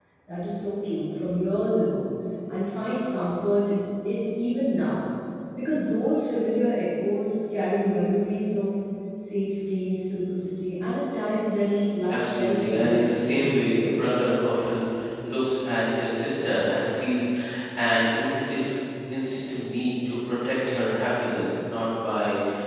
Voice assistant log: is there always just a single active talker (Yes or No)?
No